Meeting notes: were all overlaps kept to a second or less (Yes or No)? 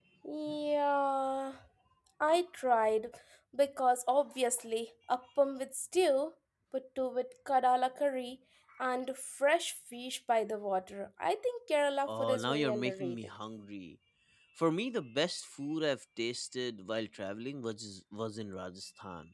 No